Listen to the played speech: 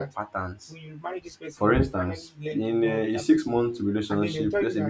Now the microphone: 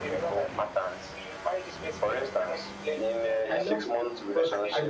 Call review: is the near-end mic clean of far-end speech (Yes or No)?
No